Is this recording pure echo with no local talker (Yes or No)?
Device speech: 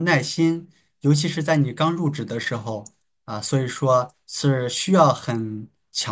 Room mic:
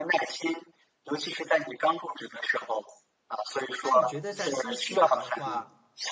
No